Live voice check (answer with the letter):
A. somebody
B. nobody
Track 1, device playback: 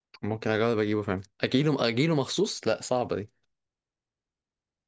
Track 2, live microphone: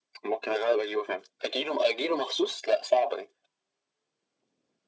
B